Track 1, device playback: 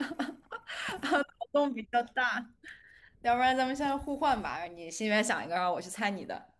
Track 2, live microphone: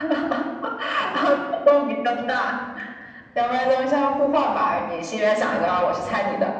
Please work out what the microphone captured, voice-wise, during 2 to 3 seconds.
echo only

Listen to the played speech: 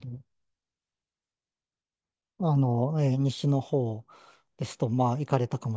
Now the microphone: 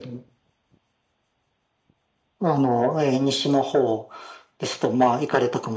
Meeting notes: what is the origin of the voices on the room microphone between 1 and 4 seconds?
echo only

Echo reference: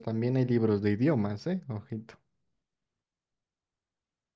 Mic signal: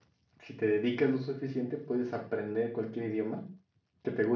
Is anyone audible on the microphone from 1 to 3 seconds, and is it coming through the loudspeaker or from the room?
user only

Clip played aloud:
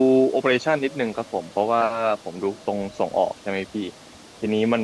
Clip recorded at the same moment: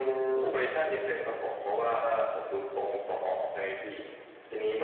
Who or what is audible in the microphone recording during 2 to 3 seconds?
echo only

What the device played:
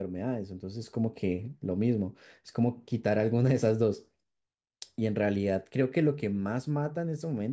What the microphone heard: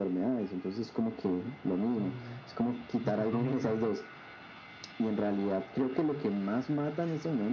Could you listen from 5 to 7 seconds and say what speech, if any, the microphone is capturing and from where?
echo only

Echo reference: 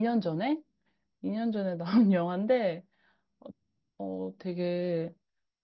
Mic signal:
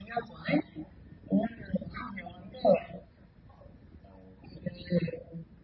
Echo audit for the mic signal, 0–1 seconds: echo only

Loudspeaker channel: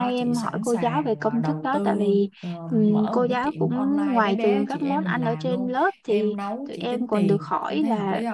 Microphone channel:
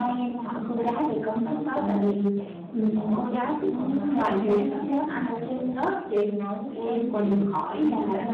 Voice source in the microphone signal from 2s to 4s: echo only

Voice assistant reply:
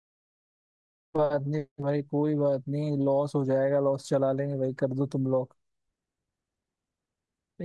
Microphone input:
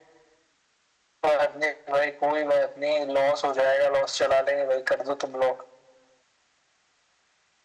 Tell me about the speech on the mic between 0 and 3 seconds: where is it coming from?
echo only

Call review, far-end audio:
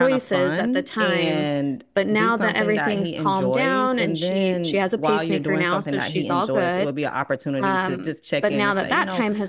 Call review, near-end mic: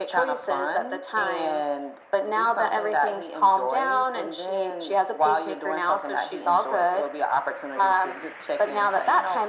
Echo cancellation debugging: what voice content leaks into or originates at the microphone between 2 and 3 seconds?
echo only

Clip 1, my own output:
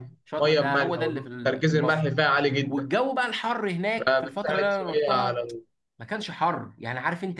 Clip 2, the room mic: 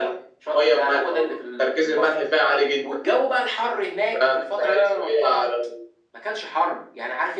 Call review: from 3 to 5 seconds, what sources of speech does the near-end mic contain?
echo only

